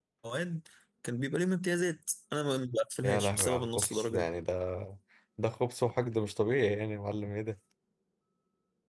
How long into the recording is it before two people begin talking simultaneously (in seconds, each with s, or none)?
3.0 s